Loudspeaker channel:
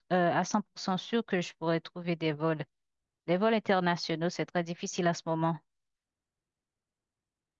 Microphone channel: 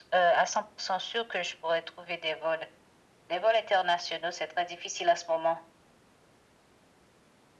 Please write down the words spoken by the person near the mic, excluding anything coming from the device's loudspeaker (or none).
none